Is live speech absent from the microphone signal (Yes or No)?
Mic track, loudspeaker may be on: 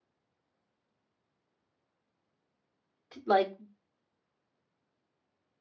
No